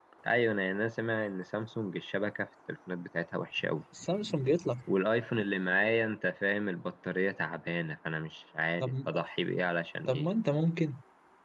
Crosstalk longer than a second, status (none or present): none